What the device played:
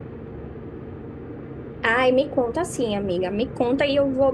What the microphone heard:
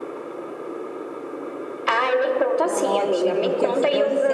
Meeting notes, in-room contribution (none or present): present